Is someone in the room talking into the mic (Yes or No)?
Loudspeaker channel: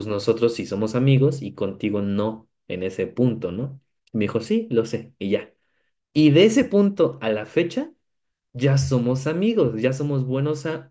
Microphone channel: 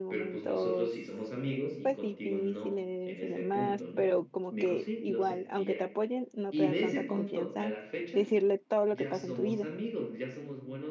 Yes